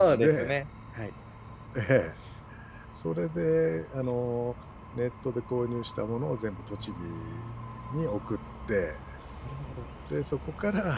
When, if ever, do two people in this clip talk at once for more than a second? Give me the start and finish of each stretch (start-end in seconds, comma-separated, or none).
none